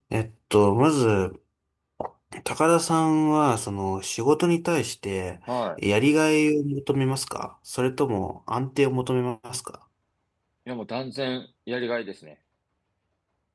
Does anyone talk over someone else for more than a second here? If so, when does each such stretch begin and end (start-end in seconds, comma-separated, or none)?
none